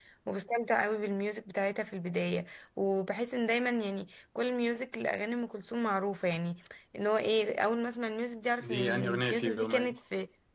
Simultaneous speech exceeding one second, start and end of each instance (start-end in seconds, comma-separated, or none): 8.6-9.9